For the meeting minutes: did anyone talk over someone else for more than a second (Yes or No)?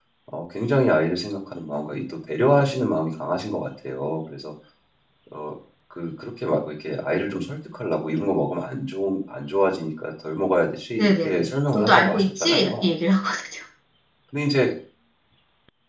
Yes